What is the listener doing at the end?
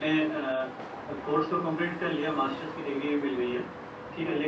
listening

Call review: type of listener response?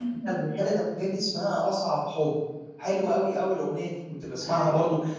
listening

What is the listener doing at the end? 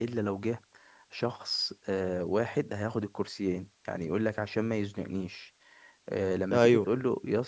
listening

